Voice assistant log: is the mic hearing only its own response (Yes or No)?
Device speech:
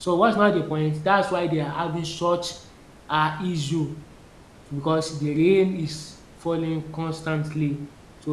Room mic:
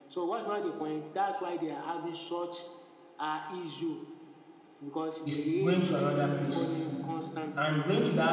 No